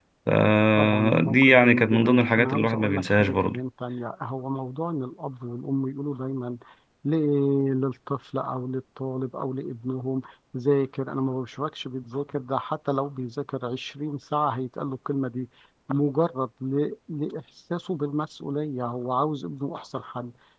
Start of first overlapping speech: 1 s

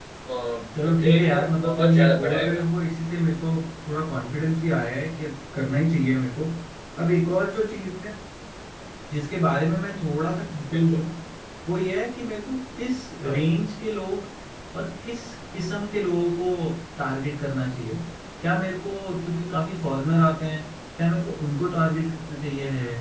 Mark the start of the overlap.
1 s

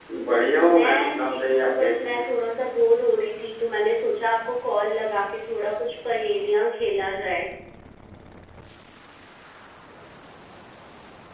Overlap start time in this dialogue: 1 s

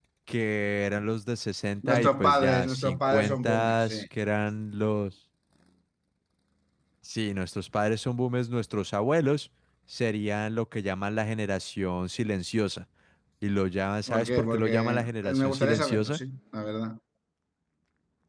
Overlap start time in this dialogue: 2 s

